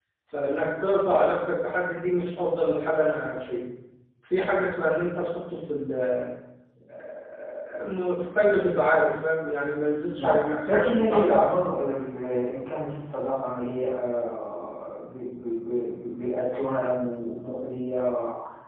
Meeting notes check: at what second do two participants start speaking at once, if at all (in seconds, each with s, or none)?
10.2 s